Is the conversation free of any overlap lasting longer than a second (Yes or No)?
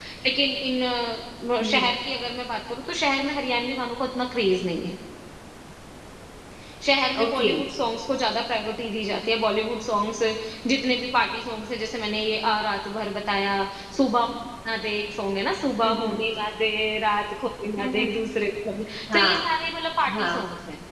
Yes